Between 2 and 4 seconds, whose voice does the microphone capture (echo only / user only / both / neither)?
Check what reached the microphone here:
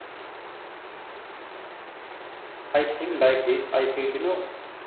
user only